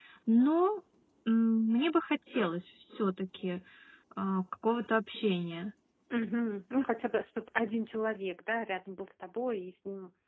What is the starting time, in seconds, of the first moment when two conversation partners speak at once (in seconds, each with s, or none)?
none